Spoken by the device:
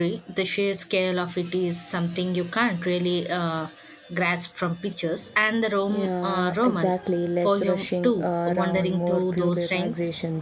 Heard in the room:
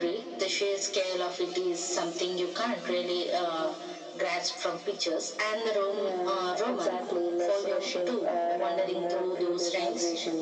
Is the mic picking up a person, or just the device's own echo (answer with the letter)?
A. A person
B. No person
B